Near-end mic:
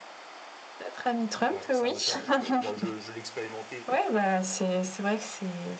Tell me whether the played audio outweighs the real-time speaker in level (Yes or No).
Yes